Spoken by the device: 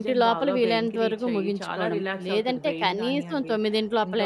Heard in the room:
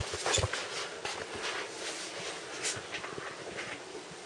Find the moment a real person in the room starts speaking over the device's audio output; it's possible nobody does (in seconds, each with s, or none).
none